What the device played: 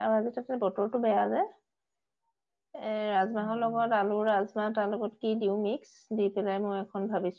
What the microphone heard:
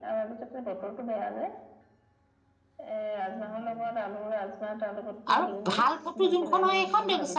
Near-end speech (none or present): present